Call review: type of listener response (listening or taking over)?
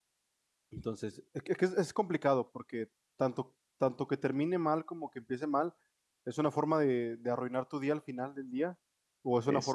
listening